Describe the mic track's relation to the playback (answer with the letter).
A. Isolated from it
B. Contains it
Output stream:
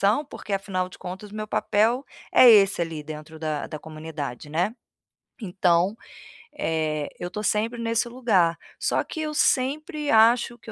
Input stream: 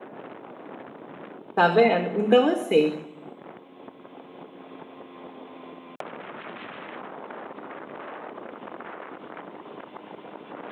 A